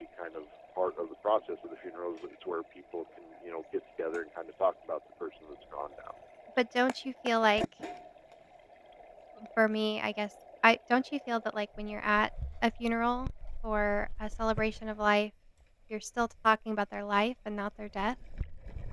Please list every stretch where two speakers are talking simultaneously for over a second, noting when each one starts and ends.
none

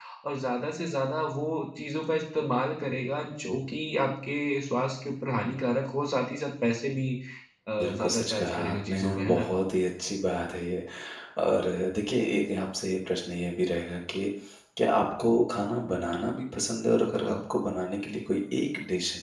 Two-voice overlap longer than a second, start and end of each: 7.8-9.5

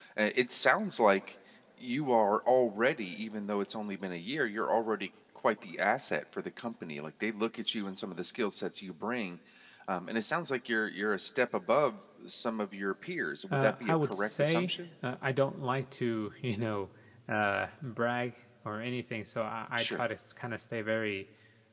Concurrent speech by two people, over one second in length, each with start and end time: 13.5-14.8

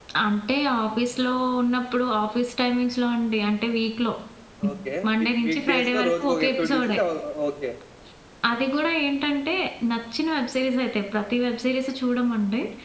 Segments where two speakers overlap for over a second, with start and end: 5.2-7.0

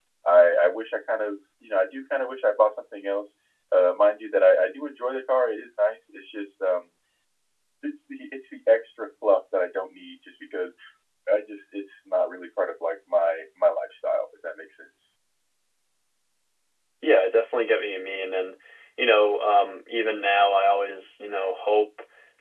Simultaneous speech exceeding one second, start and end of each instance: none

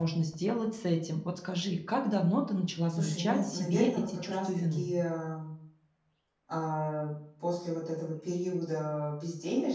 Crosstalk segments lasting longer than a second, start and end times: 2.9-4.9

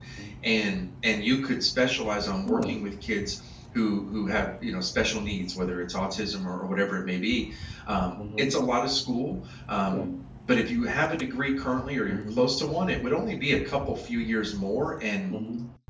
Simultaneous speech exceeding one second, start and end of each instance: none

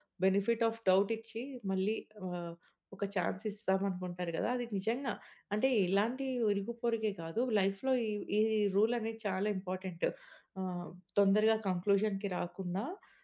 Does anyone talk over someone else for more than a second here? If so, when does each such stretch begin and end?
none

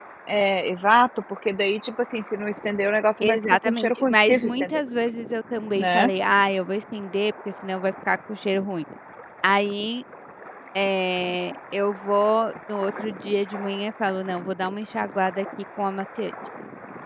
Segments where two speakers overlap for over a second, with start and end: 3.2-4.8

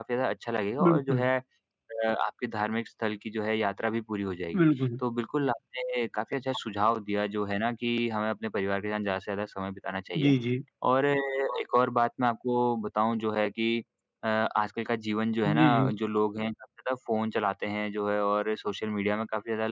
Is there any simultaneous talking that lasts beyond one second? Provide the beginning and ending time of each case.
none

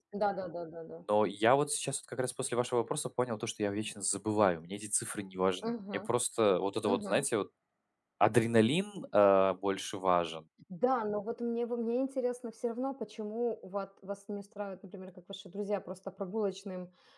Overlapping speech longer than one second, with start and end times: none

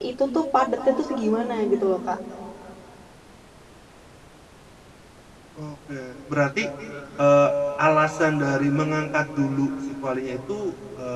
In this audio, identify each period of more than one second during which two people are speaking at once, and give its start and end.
none

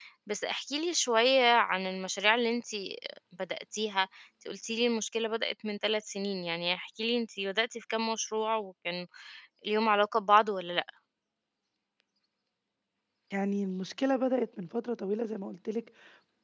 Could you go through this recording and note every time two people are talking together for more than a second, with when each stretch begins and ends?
none

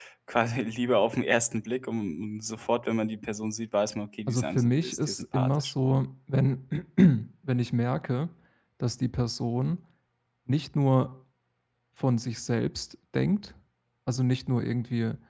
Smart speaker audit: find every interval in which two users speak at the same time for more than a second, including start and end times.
4.3-5.7

